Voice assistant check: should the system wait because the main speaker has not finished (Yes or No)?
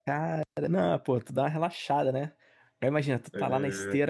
Yes